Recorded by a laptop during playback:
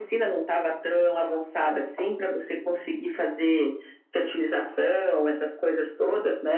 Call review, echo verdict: present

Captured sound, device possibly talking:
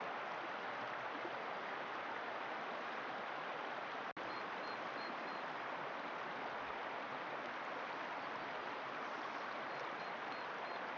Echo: none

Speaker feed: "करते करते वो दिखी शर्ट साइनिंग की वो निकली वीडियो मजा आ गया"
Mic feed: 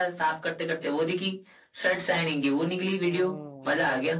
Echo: present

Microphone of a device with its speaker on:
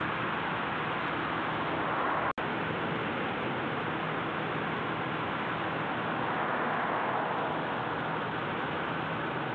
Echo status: none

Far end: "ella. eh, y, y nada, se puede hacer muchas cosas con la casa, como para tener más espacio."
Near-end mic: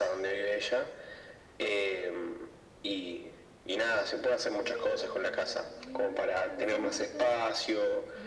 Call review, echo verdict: present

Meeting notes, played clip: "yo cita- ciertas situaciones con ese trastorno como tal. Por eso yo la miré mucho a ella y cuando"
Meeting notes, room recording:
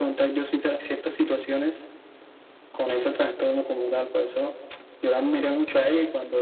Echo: present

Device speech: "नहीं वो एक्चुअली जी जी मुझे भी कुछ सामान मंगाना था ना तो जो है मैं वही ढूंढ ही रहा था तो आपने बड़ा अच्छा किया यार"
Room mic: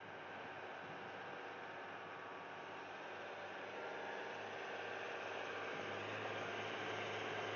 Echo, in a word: none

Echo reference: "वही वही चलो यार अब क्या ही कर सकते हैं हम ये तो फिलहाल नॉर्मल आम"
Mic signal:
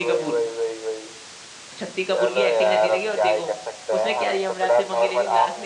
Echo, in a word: present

